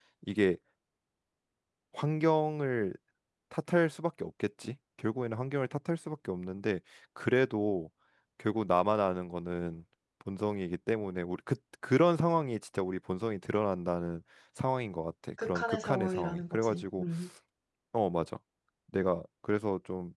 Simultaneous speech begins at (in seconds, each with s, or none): 15.4 s